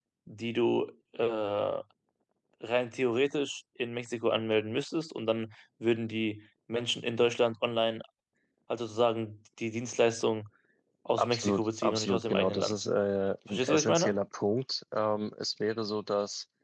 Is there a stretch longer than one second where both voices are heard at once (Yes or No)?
Yes